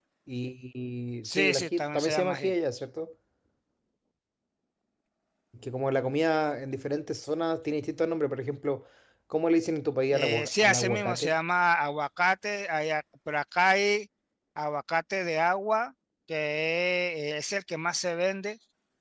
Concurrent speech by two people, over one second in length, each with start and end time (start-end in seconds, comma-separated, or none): 1.2-2.5, 10.1-11.3